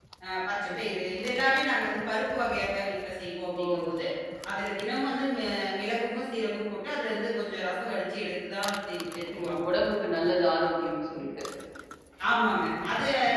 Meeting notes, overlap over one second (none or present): none